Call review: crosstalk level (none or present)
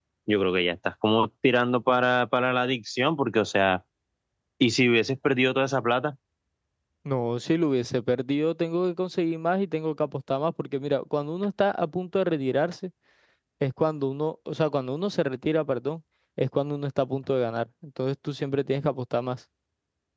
none